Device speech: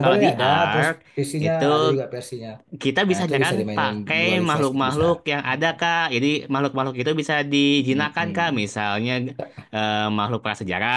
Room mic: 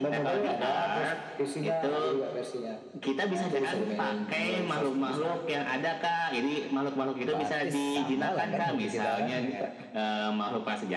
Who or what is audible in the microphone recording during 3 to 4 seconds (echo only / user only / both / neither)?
echo only